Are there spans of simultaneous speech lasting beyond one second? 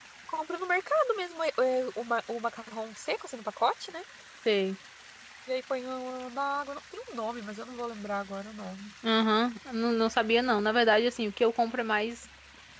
No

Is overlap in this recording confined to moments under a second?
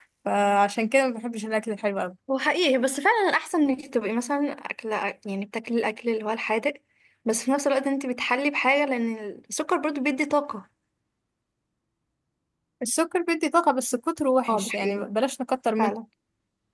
Yes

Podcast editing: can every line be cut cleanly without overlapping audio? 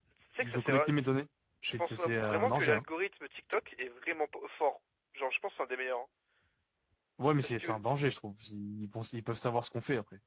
No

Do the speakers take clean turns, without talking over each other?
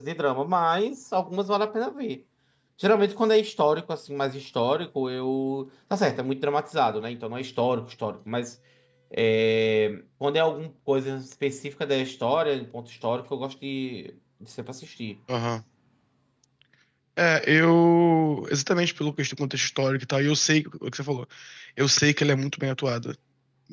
Yes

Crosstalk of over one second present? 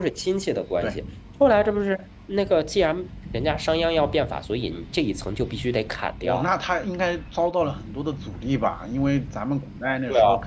No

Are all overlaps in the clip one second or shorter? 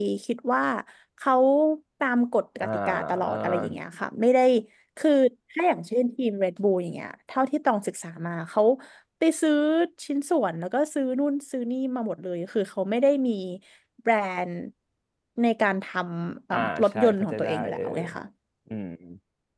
No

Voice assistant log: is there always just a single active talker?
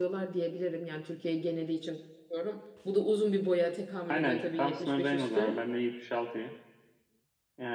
No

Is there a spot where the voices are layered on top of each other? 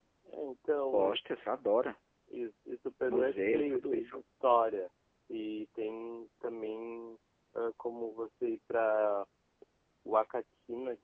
Yes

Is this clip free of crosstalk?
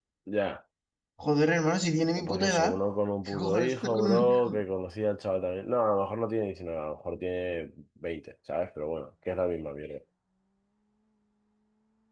No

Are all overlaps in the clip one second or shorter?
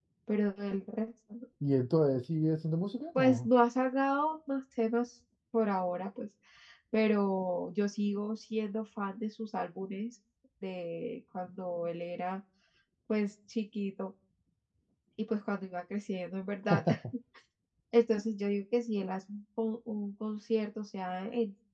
Yes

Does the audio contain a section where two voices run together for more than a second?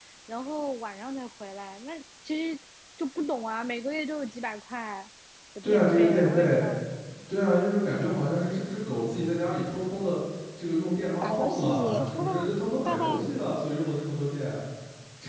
Yes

